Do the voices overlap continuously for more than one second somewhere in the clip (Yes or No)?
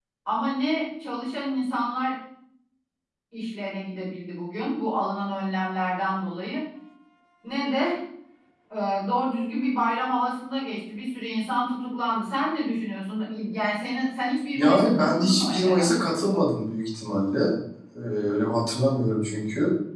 Yes